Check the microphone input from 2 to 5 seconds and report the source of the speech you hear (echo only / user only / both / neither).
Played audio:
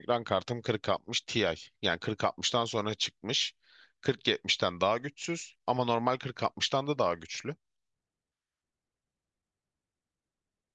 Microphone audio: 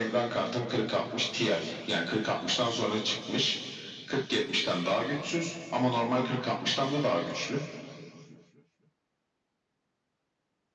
echo only